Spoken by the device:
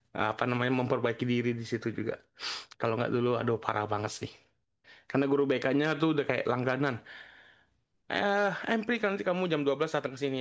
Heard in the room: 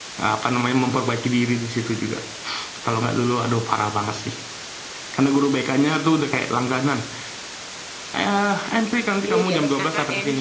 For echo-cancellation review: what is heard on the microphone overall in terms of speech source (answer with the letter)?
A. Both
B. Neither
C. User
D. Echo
A